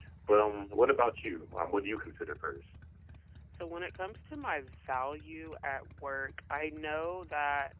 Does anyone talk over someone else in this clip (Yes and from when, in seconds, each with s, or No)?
No